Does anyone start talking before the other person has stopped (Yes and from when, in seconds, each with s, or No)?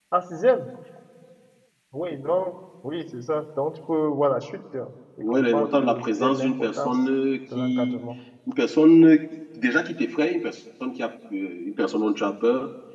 Yes, from 5.3 s